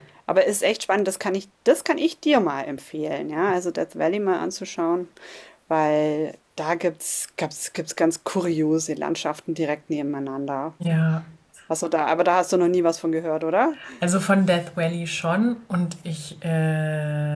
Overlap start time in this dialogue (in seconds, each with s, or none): none